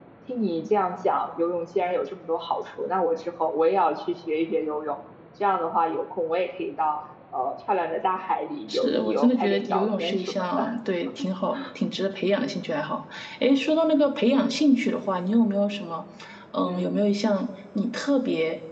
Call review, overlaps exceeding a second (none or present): present